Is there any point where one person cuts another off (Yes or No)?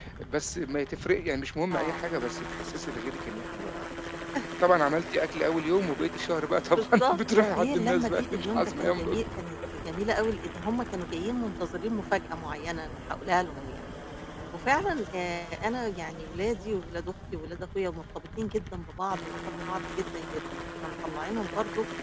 Yes